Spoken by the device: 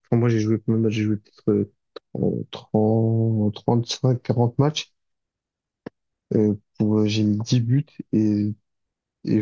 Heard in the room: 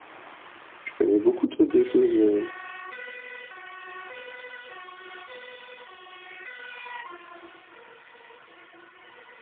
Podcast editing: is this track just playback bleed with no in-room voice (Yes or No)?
No